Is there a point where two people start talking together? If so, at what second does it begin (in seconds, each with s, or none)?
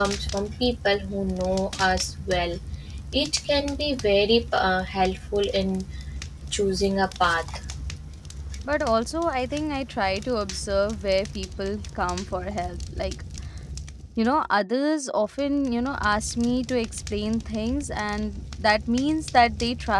none